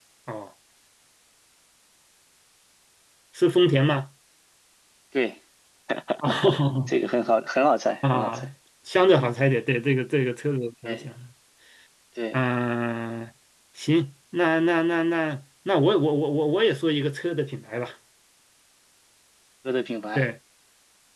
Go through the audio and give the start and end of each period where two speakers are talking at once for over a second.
none

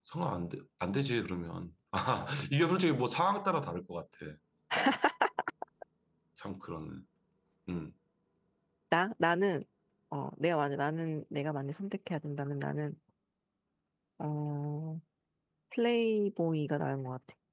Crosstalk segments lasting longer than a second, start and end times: none

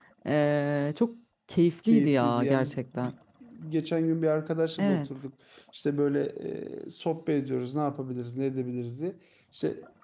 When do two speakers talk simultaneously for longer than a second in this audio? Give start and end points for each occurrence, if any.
1.9-3.1

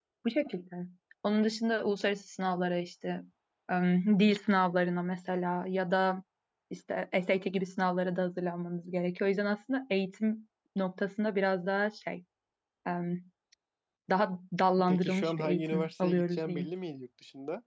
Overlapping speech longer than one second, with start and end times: 14.9-16.7

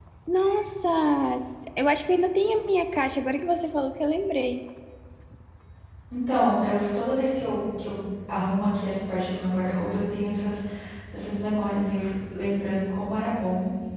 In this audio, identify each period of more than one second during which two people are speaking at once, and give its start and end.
none

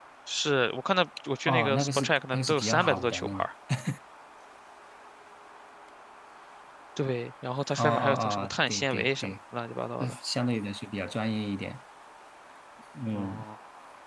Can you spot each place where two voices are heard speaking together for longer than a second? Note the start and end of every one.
1.5-3.5, 7.8-9.3

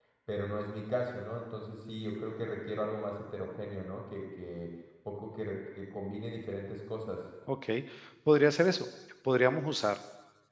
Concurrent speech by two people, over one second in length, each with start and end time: none

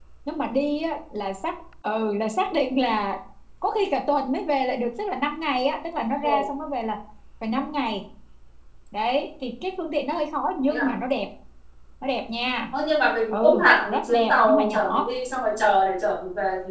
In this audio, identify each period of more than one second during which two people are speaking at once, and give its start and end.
13.3-15.1

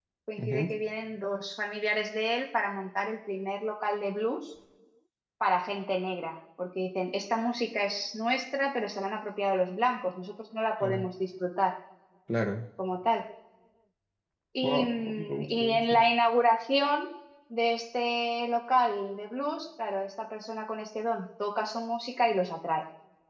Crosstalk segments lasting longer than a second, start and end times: 14.6-16.0

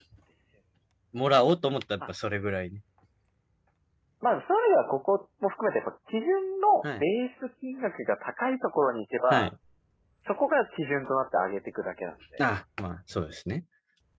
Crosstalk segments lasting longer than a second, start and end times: none

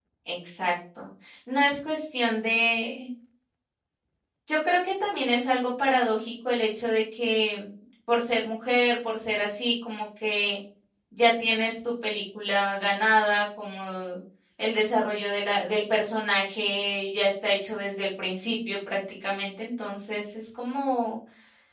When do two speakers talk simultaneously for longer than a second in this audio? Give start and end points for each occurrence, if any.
none

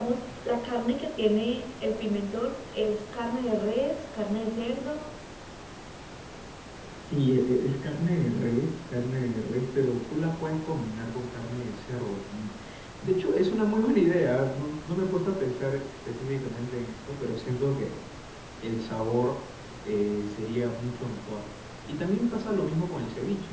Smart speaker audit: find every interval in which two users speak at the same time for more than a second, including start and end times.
none

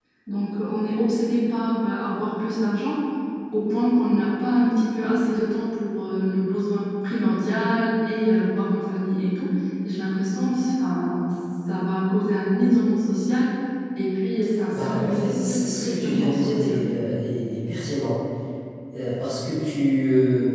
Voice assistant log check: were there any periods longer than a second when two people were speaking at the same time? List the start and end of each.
14.7-16.8

